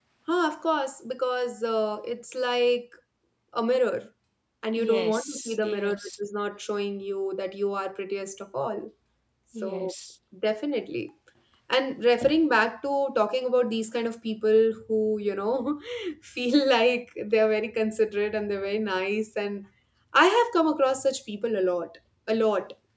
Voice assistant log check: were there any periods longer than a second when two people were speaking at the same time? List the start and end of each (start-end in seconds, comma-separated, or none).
4.8-6.2